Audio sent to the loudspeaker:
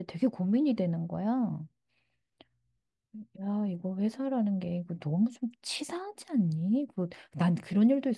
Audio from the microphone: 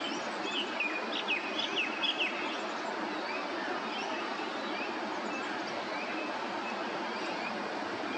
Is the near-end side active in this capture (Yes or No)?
No